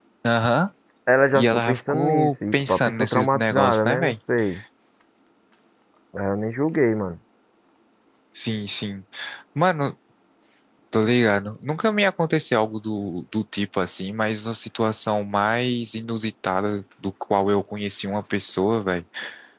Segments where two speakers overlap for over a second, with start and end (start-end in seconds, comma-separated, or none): 1.3-4.1